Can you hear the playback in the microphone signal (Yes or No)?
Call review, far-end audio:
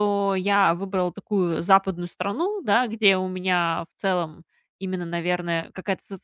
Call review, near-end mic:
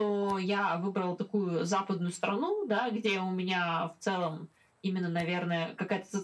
Yes